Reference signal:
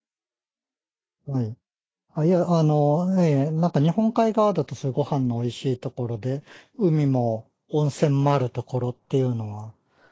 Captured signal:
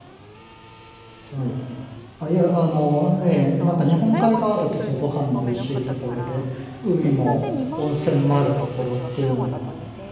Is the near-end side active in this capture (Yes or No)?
Yes